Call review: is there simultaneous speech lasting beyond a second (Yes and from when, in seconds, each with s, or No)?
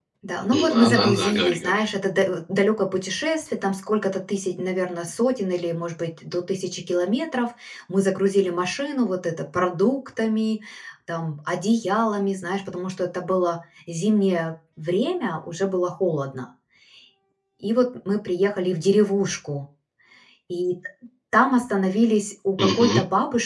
Yes, from 0.5 s